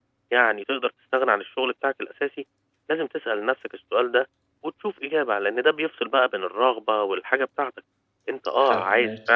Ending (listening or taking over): listening